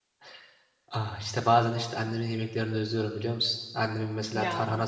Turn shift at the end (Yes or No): No